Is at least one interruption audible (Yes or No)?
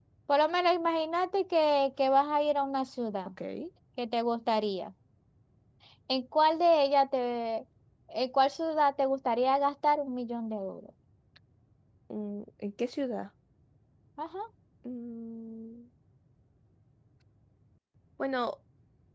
No